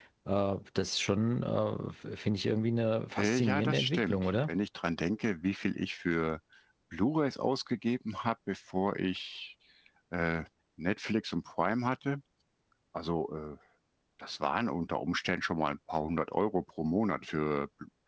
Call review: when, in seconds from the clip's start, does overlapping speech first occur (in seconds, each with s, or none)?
3.2 s